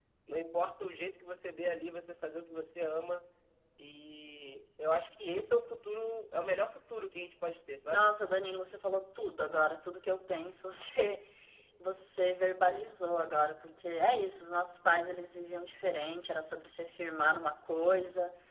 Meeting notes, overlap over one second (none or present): none